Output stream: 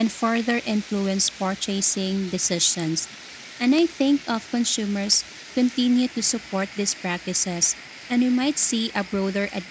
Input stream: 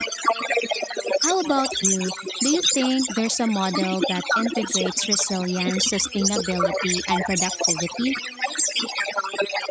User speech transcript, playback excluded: How about you? Do you think there's a model that integrates resilience, sustainability, and productivity?

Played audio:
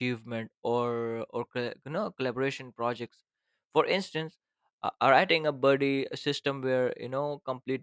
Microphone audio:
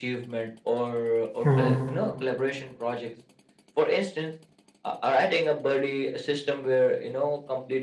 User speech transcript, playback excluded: hmm

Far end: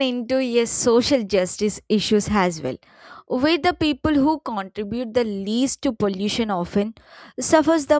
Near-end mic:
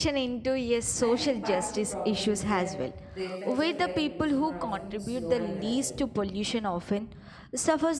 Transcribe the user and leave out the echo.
I think part of the problem is that the effects of air pollution are often slow and gradual,

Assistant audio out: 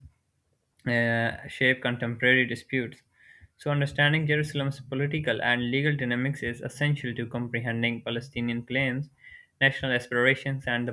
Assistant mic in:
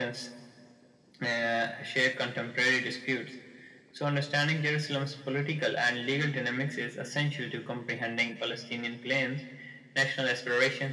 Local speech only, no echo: none

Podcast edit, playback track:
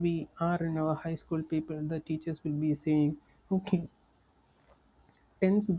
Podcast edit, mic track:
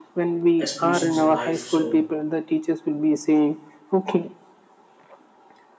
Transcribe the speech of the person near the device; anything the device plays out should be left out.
aspirations in life. So

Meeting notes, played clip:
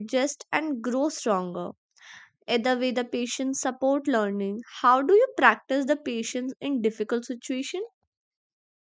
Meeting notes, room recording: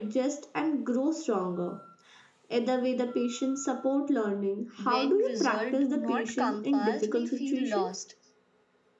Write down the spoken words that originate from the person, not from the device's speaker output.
When result do not come fast, we feel lost.

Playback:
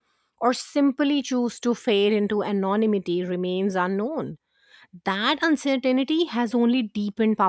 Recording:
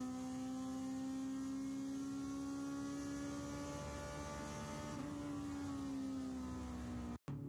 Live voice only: none

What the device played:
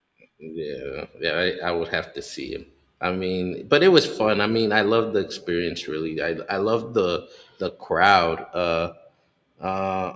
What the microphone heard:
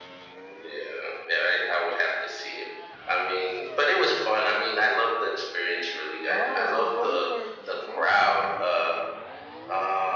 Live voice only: Oh, so both were Sh- Shakespeare

